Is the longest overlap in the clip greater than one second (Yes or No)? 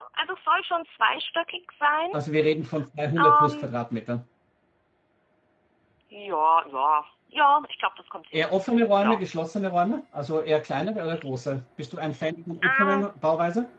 No